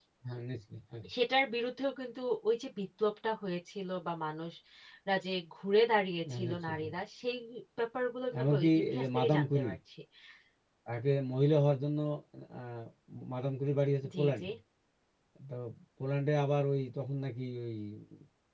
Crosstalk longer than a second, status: present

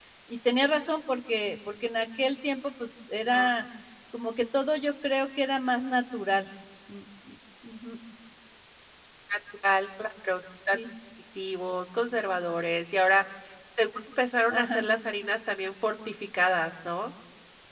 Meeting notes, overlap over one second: none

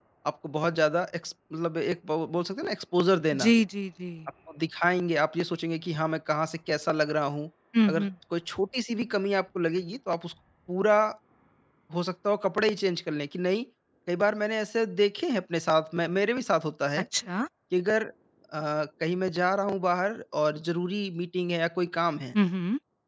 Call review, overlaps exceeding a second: none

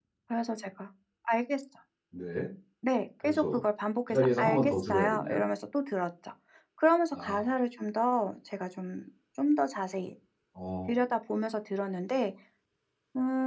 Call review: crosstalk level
present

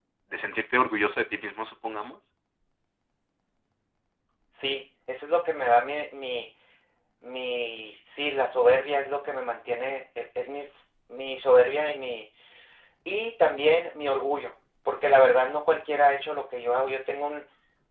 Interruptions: none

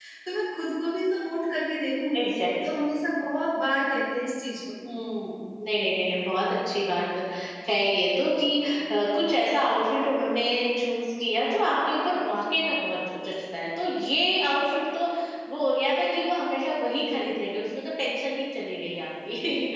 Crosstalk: none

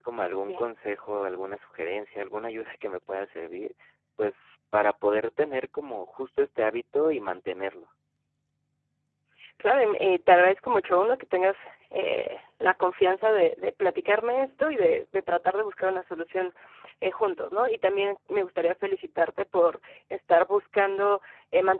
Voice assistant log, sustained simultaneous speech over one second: none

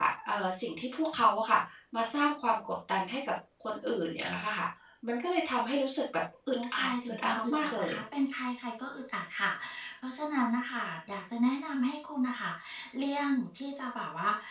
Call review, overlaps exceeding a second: present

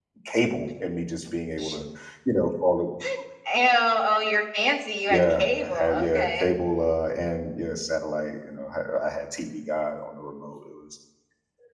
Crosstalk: present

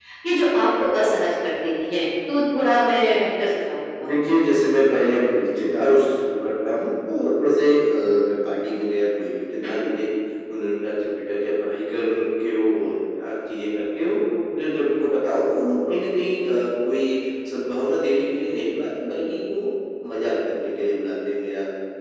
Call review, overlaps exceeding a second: none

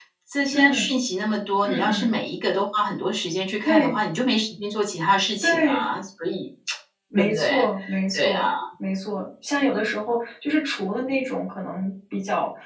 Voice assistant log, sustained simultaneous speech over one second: none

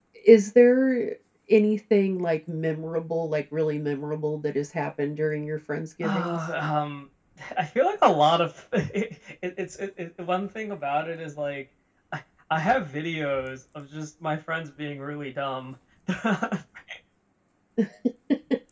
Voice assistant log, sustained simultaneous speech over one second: none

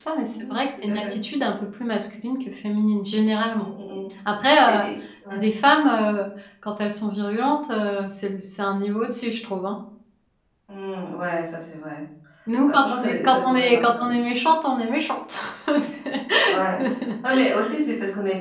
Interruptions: present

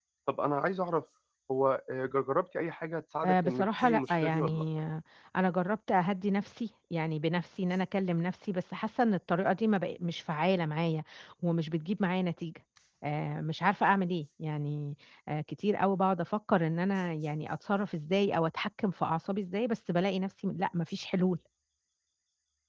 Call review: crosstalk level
present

